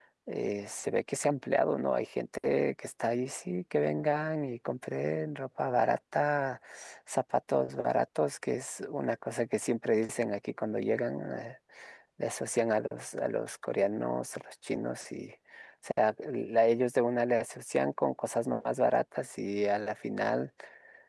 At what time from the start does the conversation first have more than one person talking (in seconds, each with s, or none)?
none